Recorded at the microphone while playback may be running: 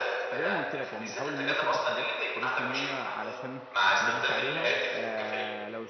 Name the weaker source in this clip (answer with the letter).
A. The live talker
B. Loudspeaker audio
A